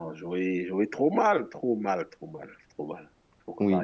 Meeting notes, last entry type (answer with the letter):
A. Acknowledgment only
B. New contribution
B